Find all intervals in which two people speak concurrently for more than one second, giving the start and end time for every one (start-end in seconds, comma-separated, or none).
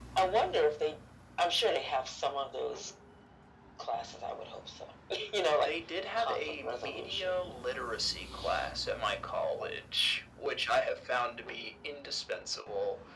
6.2-7.5